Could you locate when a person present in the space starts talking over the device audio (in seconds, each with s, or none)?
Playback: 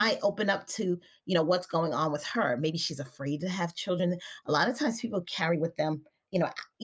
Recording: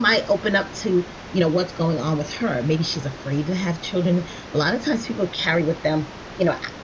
none